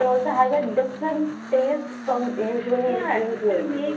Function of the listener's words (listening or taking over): taking over